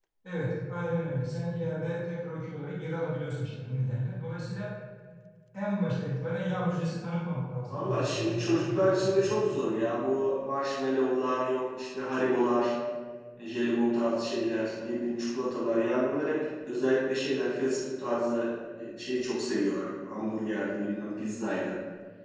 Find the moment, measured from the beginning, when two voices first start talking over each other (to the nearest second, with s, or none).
8 s